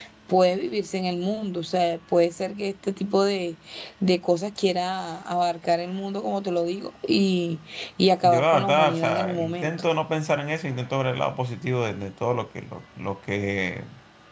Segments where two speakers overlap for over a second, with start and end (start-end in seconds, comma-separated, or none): 8.2-9.7